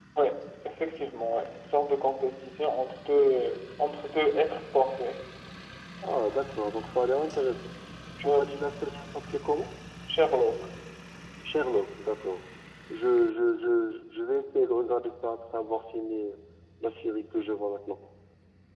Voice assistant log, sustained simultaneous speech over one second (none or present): none